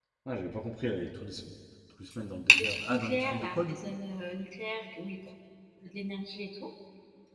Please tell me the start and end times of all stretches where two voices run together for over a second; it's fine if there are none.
2.6-3.9

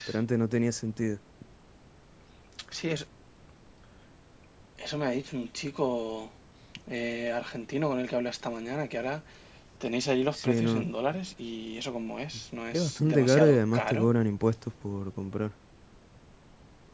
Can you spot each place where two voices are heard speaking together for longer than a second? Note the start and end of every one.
12.7-14.1

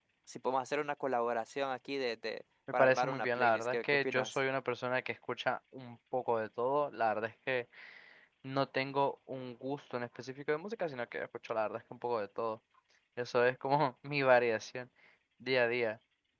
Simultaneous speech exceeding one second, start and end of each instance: 2.8-4.4

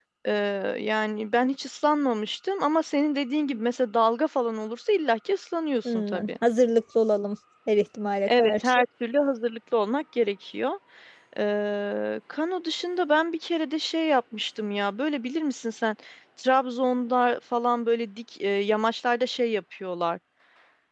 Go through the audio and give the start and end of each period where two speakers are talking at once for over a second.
none

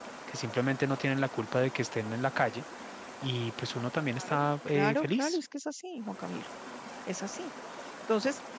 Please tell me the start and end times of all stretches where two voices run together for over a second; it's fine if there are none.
4.2-5.4

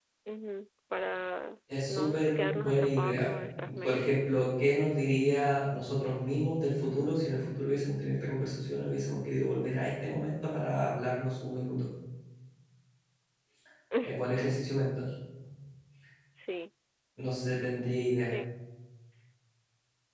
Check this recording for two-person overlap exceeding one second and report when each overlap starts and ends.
1.9-3.3

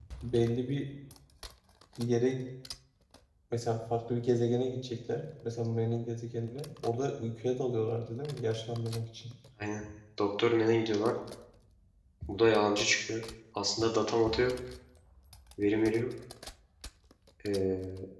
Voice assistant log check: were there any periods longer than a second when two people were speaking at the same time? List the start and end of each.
none

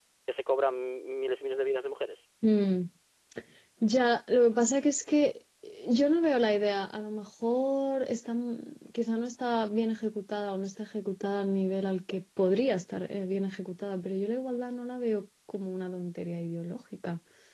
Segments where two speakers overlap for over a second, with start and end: none

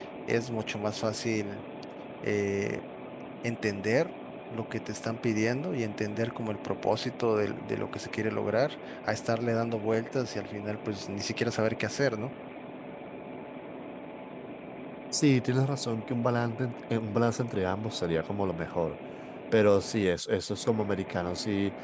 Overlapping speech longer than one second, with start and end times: none

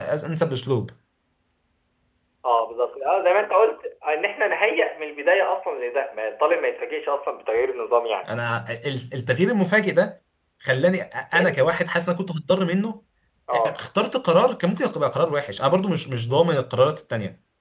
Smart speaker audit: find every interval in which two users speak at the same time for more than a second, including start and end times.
none

